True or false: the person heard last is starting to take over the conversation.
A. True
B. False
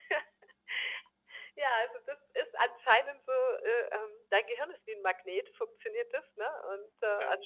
B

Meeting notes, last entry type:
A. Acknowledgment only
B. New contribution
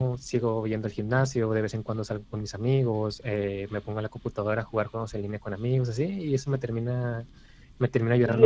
B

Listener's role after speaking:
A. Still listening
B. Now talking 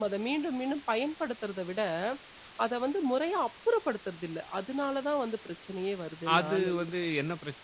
B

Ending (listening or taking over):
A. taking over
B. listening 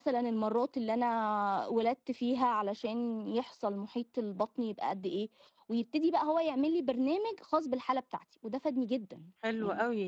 A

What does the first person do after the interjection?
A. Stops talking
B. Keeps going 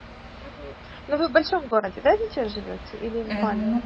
A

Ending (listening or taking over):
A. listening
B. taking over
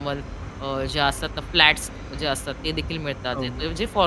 A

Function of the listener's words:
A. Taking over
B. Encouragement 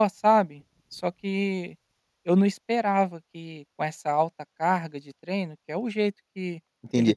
A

